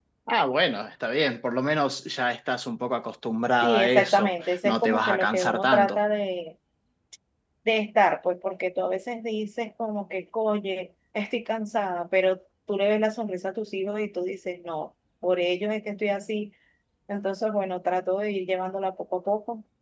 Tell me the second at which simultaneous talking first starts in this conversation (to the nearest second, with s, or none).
4 s